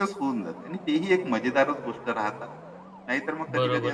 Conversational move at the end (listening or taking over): taking over